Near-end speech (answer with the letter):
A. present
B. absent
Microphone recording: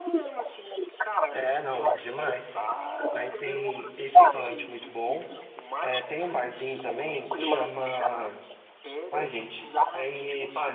A